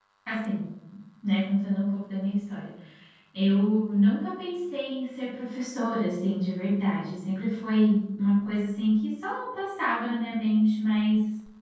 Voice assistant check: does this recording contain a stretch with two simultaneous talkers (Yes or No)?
No